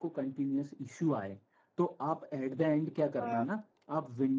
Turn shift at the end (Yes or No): No